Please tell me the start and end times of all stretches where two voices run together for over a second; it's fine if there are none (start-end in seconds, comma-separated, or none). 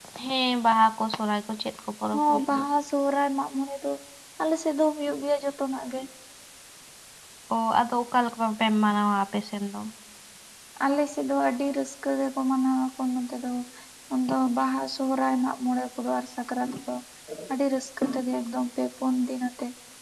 none